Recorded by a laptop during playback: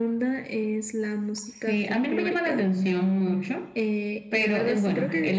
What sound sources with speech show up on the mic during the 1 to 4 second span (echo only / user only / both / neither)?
echo only